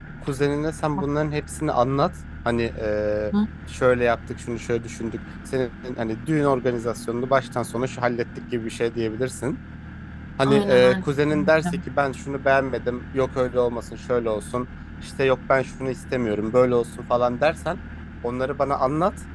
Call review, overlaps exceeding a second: present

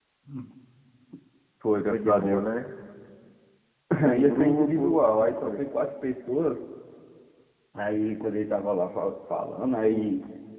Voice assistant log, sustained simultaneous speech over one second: present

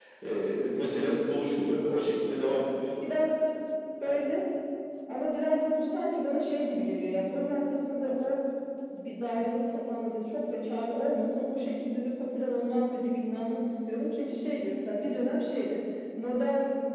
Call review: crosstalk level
none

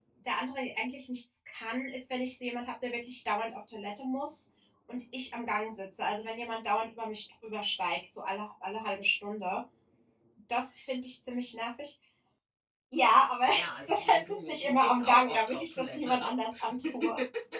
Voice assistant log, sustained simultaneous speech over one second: present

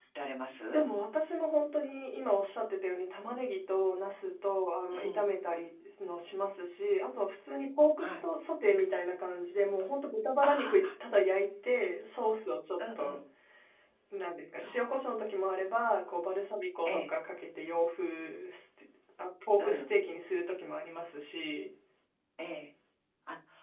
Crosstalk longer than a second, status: none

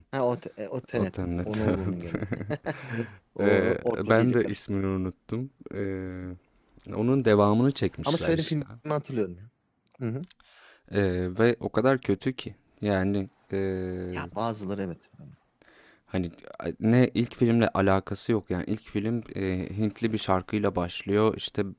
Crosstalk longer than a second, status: present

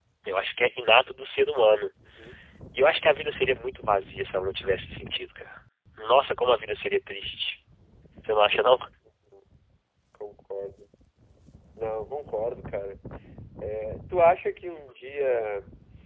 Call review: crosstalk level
none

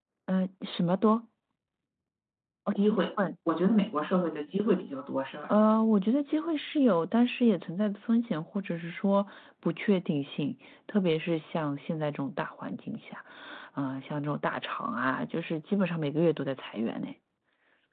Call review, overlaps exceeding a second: none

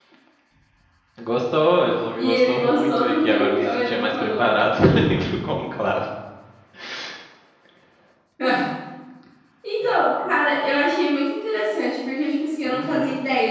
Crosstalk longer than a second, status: present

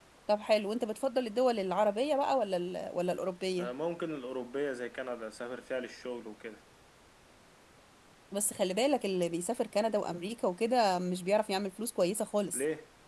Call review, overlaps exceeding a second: none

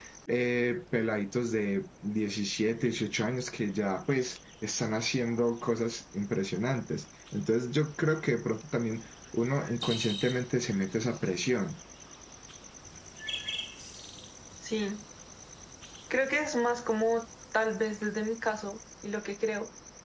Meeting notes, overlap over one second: none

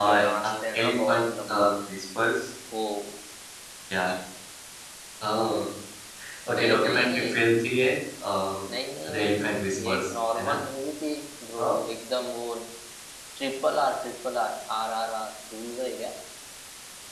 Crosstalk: present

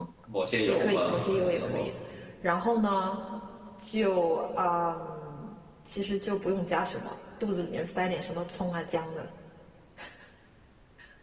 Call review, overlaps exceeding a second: present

